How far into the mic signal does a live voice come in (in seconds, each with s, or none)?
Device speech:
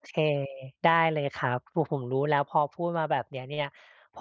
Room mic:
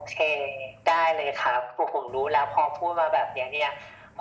none